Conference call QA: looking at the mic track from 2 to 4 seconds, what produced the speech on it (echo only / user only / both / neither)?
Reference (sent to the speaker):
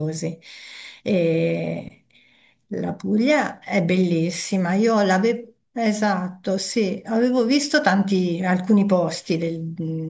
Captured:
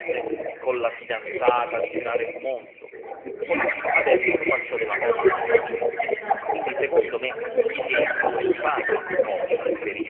both